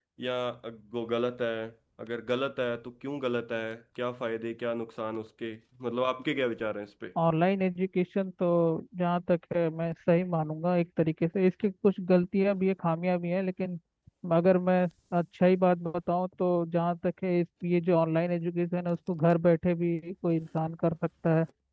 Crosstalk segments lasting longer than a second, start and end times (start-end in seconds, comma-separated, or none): none